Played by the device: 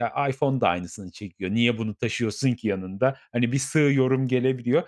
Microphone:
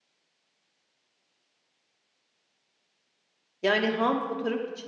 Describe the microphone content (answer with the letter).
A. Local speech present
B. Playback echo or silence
A